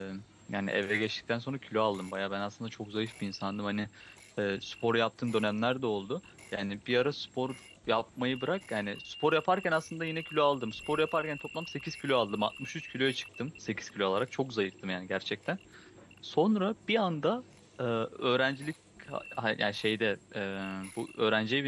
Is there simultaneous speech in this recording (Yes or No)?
No